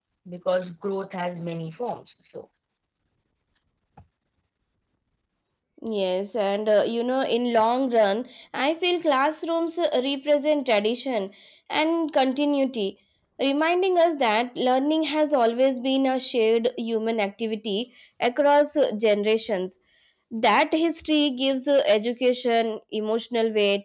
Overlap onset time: none

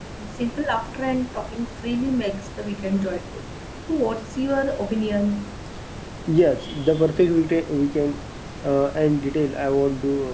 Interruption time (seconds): none

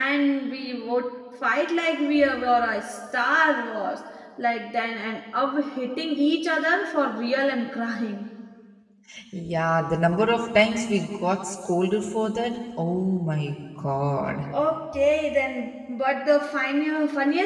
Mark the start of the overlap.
none

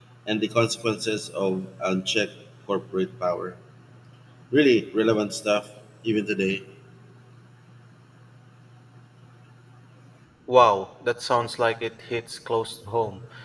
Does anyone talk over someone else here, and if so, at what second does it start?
none

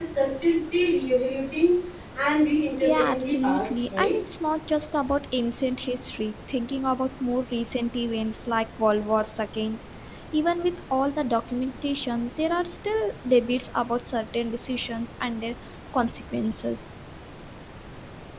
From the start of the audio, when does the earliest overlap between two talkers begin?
2.8 s

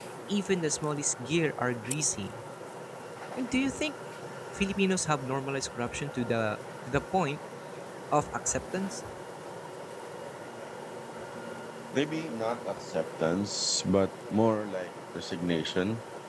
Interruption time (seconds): none

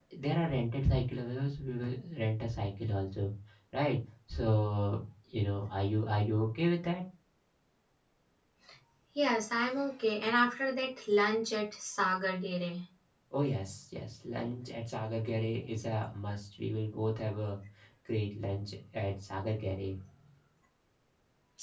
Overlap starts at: none

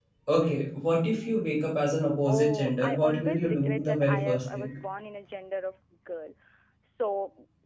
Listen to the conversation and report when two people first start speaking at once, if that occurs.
2.3 s

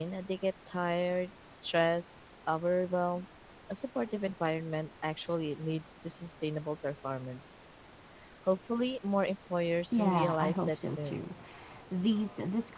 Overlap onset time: 9.9 s

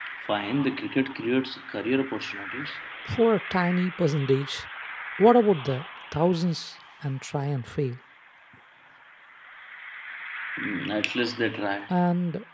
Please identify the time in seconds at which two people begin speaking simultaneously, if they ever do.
none

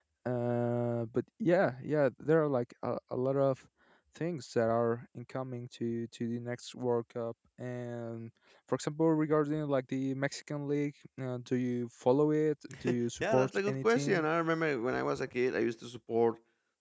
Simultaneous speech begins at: 12.8 s

